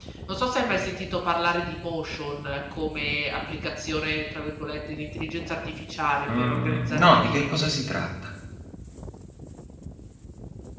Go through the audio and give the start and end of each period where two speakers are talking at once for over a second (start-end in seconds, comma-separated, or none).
6.4-7.7